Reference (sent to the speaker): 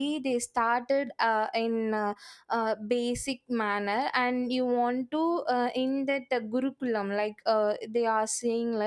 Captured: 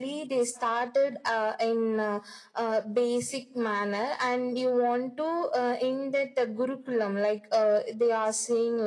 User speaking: No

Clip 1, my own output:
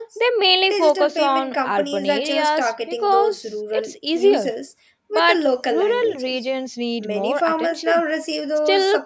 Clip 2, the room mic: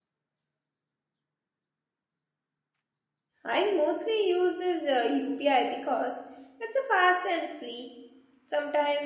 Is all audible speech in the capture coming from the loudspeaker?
No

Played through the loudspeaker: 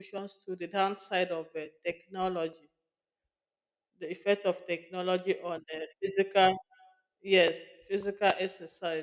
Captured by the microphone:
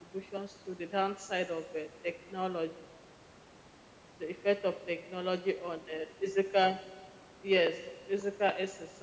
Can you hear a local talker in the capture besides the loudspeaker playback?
No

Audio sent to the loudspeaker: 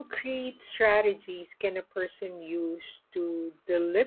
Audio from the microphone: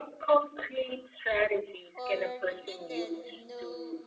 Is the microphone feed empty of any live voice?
No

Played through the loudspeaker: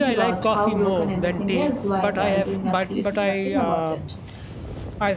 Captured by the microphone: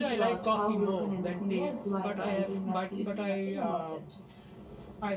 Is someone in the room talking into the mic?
No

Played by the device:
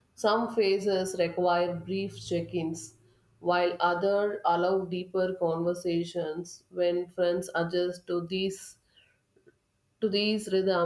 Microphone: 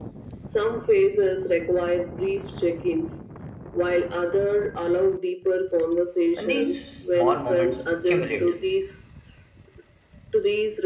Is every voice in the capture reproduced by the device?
No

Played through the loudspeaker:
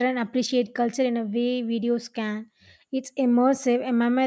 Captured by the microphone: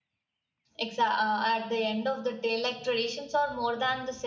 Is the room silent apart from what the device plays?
No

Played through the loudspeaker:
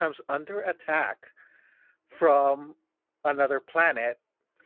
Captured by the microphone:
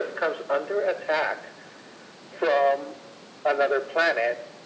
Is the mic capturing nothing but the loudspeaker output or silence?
Yes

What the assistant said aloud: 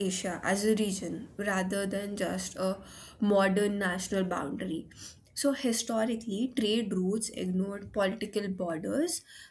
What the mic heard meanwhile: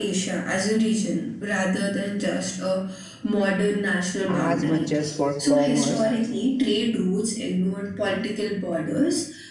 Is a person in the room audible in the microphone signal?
Yes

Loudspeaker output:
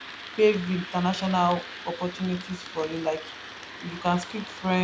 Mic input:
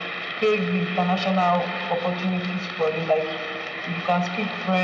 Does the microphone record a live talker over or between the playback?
No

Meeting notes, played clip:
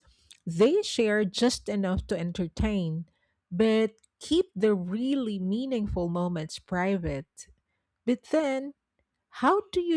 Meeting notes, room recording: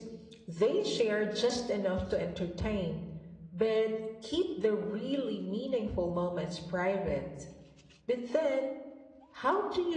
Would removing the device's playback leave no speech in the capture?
Yes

